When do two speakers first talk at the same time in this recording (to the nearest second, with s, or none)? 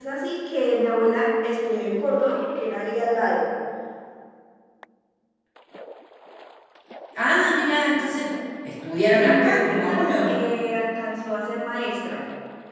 9 s